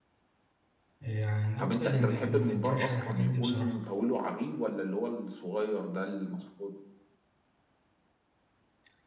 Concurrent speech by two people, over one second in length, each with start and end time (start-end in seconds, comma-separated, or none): 1.6-3.7